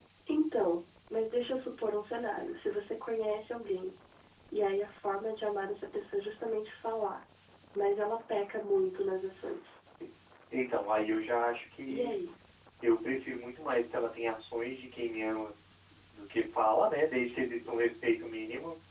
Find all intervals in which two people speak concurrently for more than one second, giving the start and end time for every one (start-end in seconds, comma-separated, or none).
none